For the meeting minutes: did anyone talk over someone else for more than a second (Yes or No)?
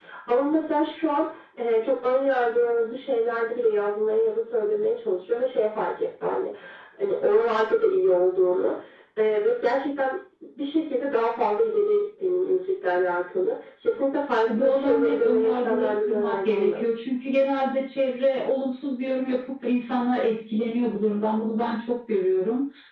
Yes